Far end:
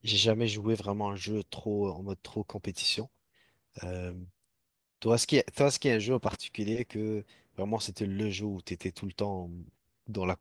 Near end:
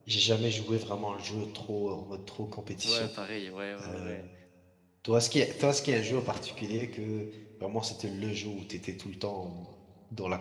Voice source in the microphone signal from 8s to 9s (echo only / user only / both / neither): echo only